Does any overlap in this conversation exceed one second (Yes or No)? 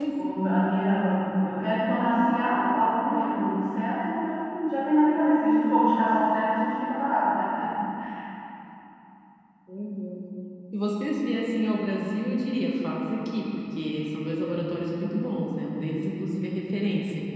No